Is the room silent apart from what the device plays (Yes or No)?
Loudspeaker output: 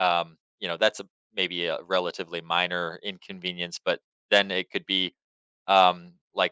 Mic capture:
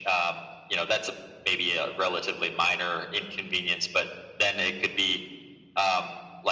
Yes